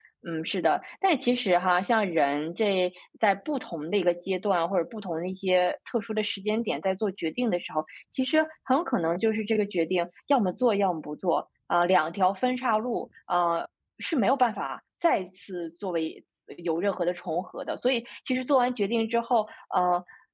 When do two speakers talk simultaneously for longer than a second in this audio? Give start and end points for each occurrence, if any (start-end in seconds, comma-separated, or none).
none